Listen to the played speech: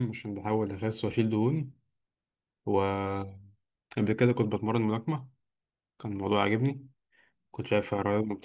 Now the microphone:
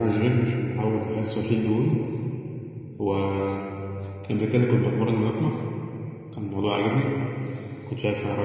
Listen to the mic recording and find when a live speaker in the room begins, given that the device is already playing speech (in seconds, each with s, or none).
none